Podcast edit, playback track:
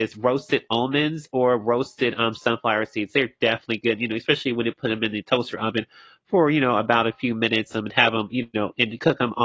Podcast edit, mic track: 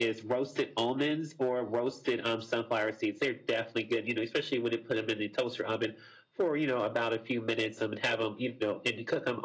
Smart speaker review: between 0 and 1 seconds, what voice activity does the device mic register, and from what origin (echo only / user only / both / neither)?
echo only